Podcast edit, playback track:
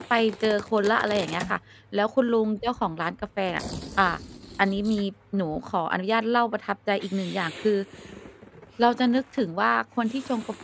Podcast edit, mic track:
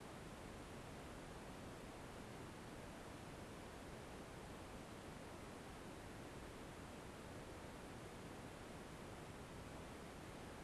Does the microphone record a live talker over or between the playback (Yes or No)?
No